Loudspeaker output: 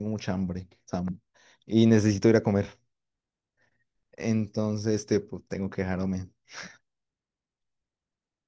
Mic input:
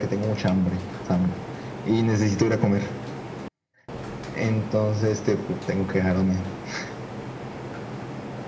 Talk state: echo only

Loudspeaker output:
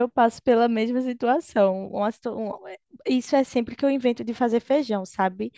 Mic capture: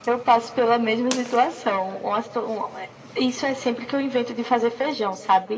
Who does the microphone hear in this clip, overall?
echo only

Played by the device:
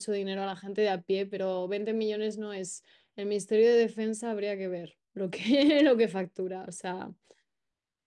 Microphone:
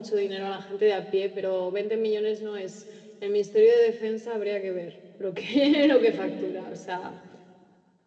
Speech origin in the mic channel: echo only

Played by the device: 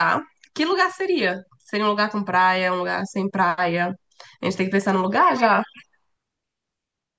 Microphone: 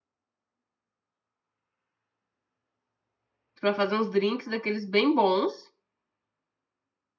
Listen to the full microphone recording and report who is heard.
user only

